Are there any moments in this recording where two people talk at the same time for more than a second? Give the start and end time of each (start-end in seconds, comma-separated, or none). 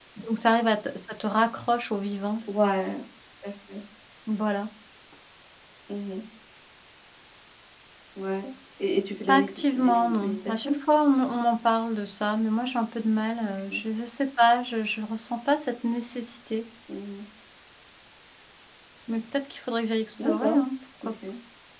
9.3-10.7